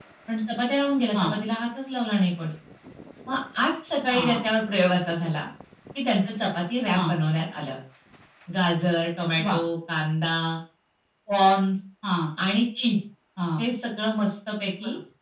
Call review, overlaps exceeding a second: none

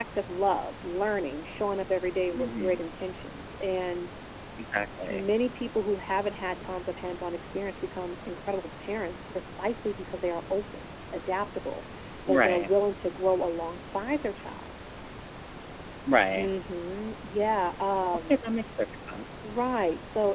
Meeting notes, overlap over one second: none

